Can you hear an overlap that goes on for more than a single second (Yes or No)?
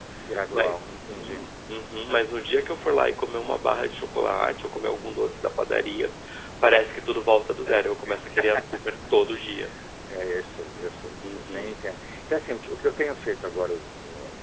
No